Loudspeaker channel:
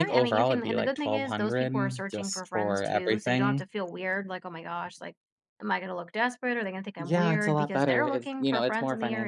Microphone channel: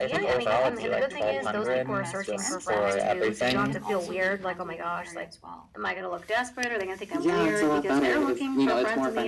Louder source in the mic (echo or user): echo